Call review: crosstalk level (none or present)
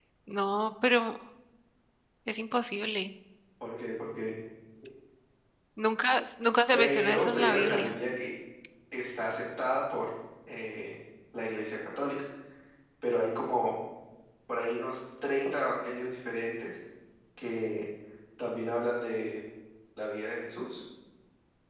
present